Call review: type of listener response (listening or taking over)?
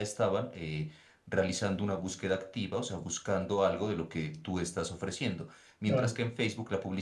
listening